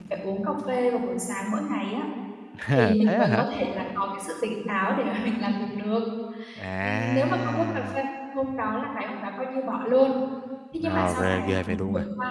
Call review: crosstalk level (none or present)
present